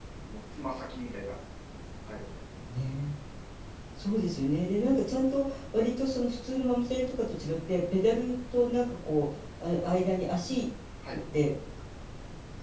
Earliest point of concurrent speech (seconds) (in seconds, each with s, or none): none